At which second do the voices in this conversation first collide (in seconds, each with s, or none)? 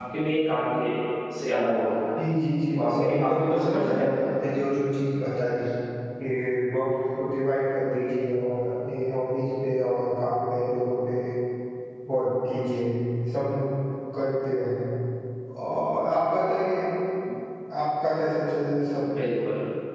2.7 s